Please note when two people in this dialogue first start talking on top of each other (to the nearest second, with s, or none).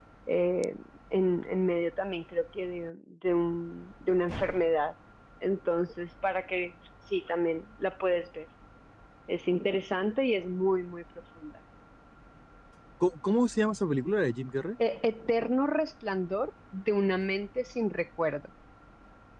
none